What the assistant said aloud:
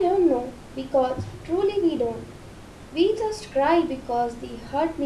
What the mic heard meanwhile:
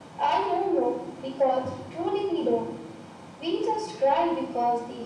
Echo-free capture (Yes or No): No